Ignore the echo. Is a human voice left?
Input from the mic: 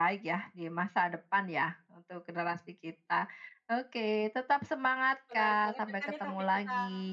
Yes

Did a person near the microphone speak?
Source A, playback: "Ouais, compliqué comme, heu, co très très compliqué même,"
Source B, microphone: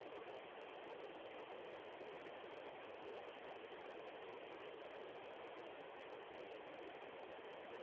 No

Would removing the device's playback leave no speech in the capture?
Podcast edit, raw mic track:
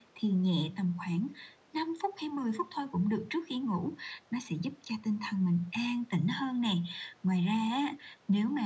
Yes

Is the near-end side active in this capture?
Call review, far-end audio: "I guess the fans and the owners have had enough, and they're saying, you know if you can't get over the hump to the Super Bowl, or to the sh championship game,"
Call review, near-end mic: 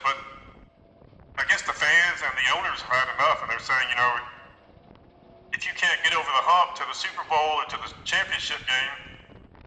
No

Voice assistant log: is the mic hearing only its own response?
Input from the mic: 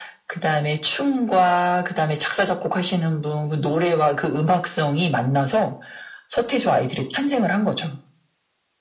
Yes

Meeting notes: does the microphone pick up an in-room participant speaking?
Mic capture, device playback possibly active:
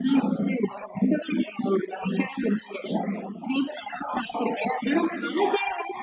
No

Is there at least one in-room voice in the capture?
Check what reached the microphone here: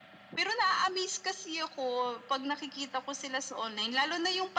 No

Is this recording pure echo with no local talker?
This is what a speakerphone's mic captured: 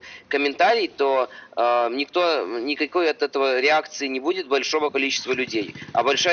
Yes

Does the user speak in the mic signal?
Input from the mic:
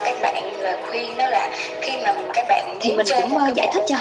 Yes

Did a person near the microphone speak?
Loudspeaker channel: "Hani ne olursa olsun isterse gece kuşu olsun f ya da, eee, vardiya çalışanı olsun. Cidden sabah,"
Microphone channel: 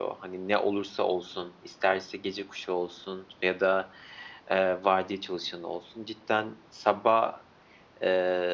No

